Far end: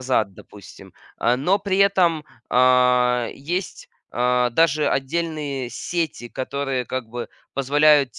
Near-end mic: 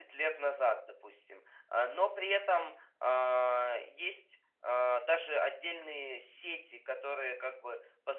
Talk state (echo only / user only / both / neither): echo only